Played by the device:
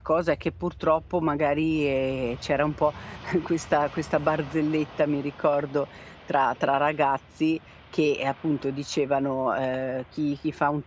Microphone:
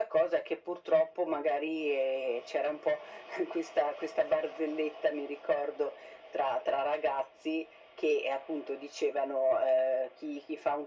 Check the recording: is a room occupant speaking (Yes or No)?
No